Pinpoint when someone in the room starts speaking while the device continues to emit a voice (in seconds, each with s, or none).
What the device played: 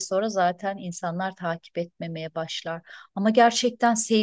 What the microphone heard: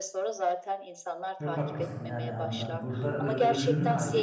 1.4 s